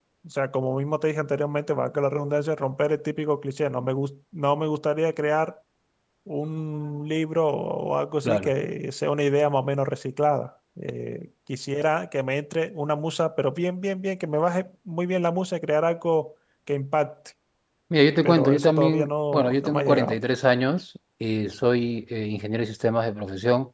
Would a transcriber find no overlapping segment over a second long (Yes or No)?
No